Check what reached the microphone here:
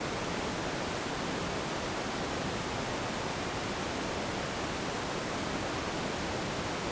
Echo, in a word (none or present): none